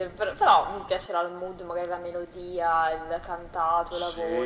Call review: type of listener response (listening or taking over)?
taking over